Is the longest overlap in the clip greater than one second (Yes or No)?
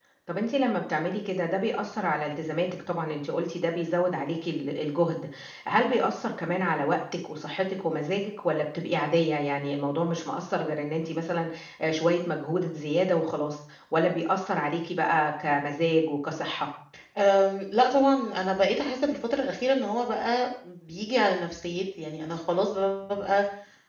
No